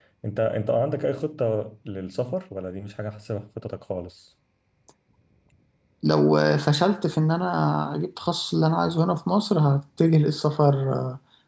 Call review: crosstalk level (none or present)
none